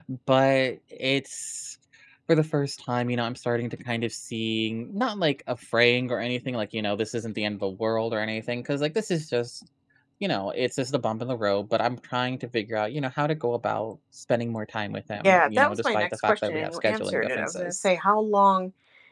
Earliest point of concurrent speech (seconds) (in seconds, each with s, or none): 15.2 s